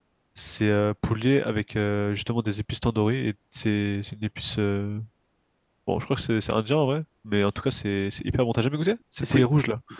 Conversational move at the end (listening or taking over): taking over